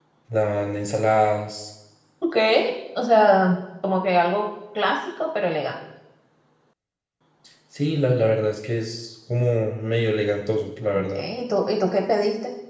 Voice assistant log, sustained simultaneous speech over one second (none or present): none